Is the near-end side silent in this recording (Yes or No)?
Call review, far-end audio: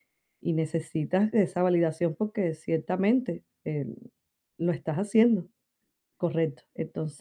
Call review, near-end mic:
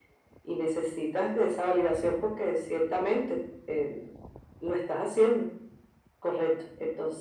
Yes